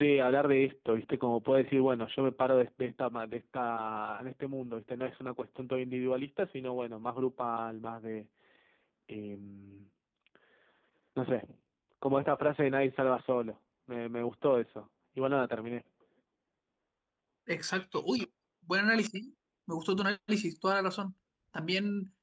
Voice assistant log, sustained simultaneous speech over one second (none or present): none